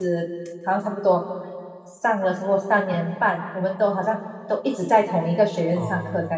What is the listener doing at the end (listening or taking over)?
taking over